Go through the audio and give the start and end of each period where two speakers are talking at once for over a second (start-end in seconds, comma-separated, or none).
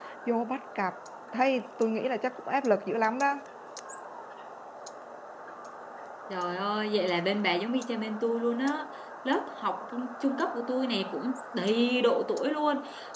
none